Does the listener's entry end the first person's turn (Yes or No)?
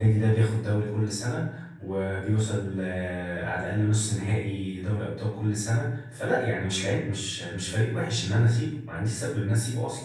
Yes